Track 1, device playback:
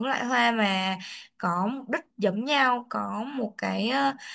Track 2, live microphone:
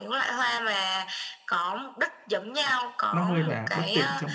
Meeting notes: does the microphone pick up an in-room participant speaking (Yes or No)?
Yes